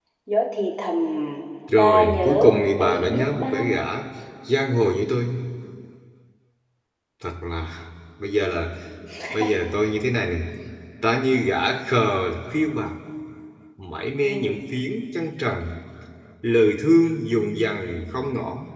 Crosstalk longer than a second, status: present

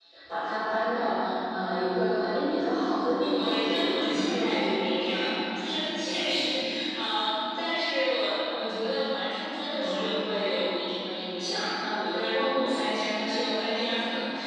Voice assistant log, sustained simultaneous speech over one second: present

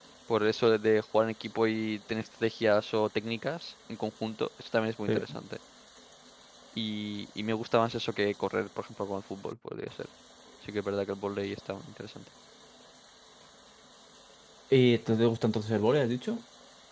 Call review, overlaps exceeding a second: none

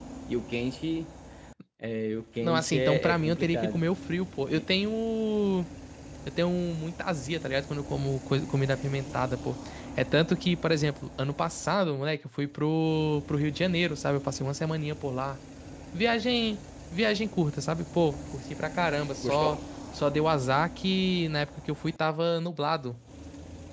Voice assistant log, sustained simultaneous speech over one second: present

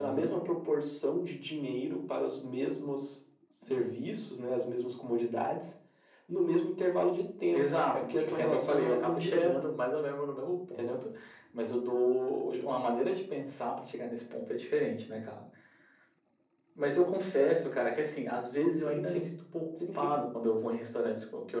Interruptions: present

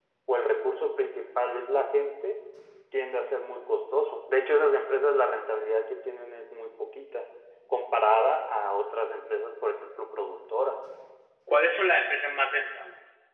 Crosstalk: none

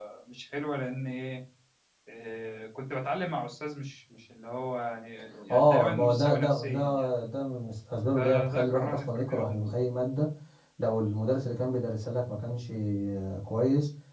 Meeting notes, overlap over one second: present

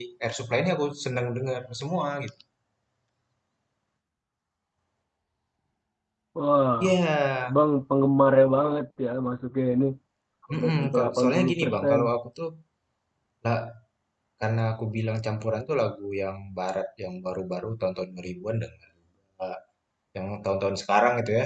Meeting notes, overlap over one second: present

